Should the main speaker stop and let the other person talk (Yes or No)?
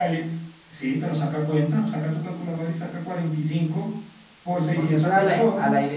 Yes